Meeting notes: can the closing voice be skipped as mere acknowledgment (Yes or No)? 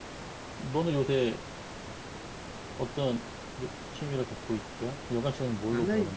No